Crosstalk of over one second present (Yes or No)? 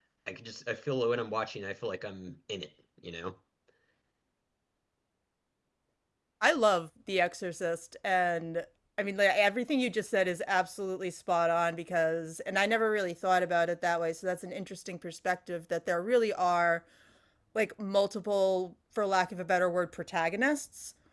No